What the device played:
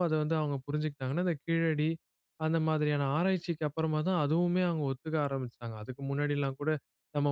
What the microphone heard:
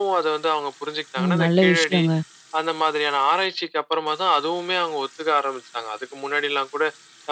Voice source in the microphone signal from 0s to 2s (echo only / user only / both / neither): both